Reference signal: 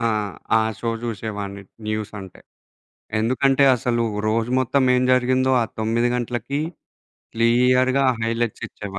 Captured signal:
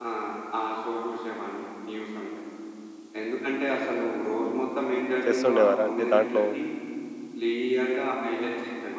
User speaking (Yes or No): Yes